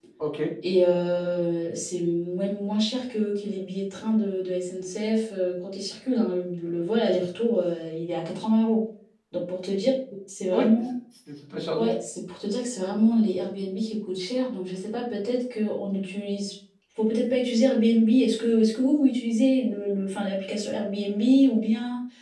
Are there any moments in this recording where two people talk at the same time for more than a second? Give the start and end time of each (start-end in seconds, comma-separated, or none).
none